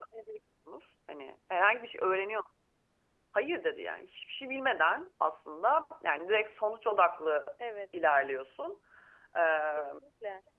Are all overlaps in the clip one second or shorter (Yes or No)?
Yes